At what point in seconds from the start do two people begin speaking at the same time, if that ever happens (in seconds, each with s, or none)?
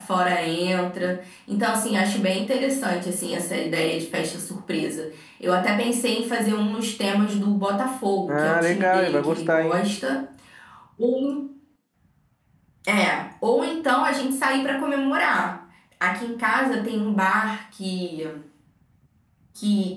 8.3 s